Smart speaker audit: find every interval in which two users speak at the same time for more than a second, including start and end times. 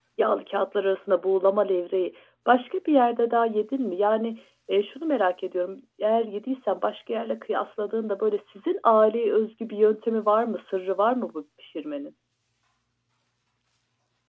none

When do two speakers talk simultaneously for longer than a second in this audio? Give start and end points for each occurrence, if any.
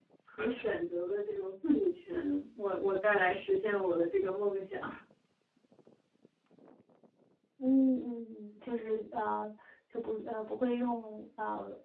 none

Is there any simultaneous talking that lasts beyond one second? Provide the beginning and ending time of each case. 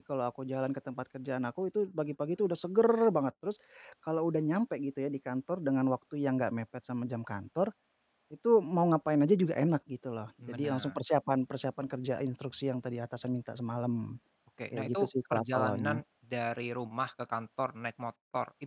14.7-16.0

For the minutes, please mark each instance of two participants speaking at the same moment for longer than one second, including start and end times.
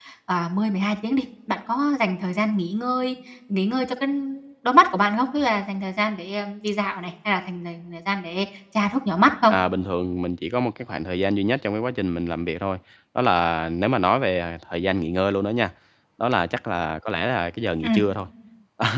none

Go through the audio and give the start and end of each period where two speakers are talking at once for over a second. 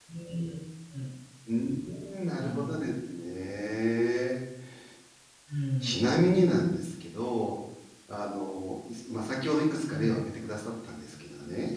none

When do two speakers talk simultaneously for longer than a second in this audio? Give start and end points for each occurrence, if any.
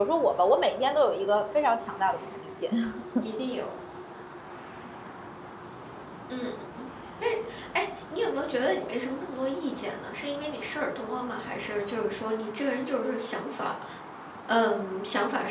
none

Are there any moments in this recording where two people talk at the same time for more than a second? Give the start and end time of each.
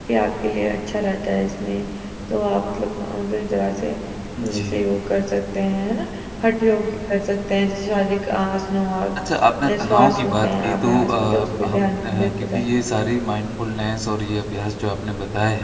9.7-12.7

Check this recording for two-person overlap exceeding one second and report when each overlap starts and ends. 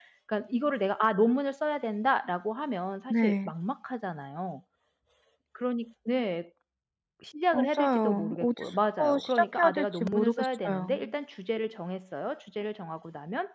7.5-10.9

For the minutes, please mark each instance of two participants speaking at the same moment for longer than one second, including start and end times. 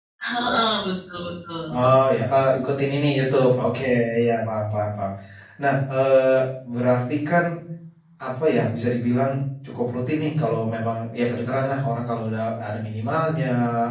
none

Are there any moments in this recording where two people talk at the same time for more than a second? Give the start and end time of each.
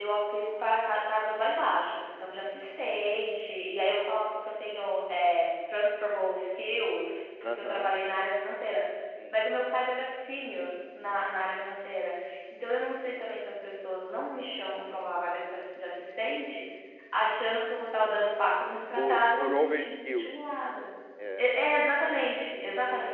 18.9-20.3

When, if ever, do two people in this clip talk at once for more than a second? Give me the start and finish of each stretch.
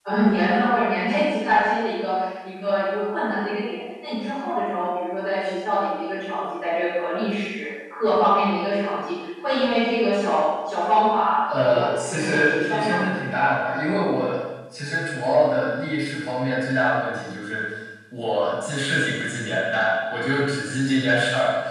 11.5-13.0

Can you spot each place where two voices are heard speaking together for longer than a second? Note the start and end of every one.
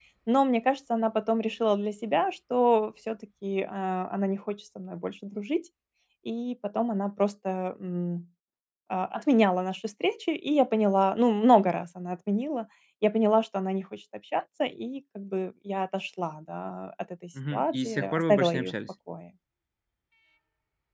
17.5-18.7

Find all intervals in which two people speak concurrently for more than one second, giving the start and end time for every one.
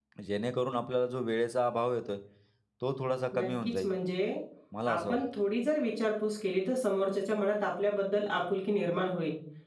none

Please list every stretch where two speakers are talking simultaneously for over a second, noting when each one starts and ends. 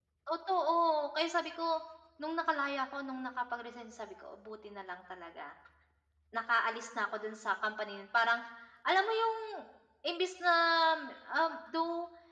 none

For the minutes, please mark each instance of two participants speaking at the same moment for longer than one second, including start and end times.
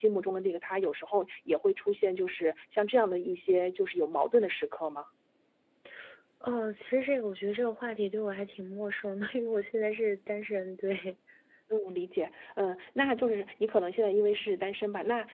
none

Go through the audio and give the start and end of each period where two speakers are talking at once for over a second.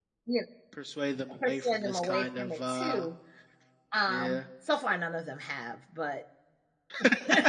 1.5-3.1

